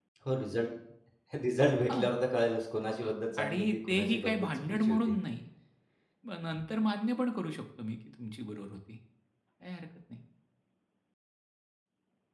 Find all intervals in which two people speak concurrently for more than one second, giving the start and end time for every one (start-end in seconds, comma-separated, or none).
3.4-5.2